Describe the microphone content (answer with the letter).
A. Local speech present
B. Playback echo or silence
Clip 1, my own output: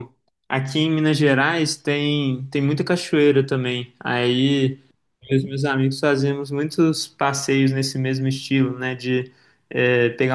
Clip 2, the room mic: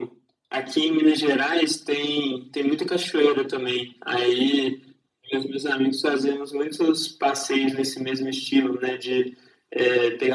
B